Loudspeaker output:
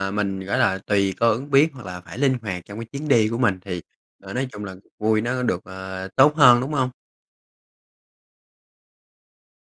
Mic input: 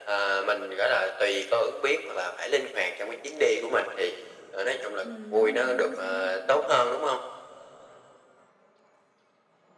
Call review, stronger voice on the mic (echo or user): echo